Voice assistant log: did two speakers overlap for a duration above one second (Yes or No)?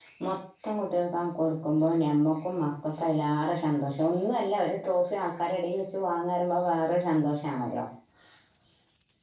No